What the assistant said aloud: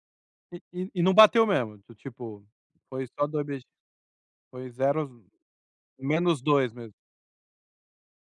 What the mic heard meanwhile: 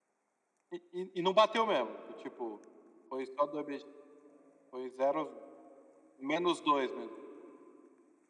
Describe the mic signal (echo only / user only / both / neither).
echo only